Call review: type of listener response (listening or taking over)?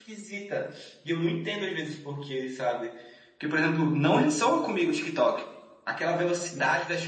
listening